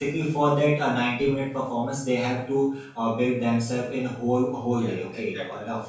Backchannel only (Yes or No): Yes